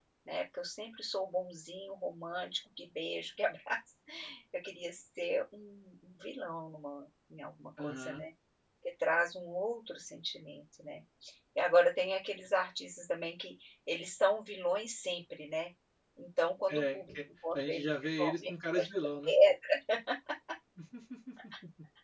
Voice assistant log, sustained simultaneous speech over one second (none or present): present